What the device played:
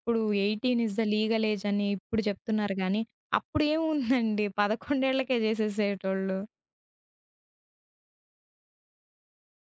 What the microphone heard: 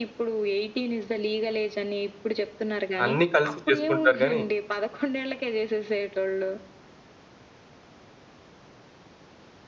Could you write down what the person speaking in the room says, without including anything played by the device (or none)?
అన్నీ కలిసి చేసుకుంటారు గానీ